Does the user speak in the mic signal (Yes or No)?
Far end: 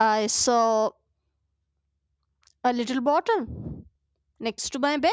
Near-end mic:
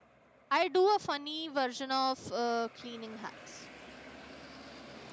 Yes